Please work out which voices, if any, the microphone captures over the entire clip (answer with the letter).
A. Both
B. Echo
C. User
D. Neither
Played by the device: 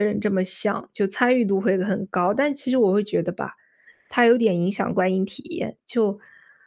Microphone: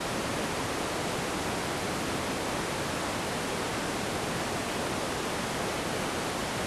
D